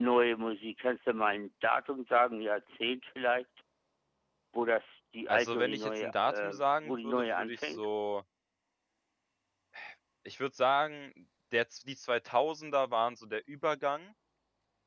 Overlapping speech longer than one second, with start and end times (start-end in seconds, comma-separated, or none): 5.3-7.8